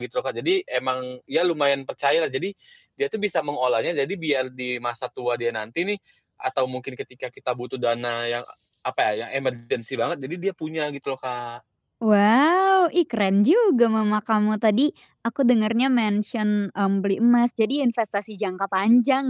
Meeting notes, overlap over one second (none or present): none